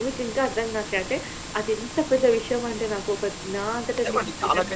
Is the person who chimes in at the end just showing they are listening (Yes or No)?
No